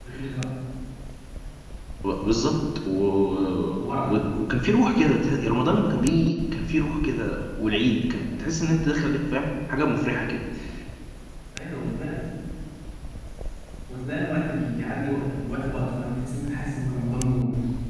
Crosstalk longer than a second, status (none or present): none